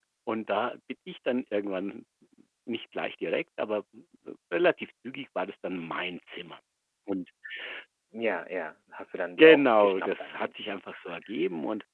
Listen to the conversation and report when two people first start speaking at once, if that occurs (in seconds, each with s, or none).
9.4 s